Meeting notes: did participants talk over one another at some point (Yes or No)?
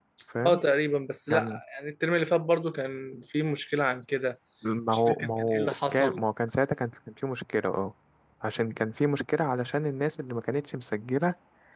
Yes